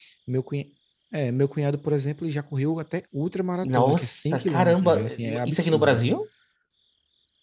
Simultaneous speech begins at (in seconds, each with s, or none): 3.6 s